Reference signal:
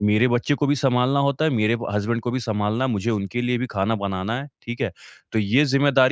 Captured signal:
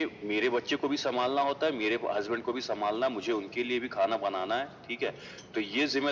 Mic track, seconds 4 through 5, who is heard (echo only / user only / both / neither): echo only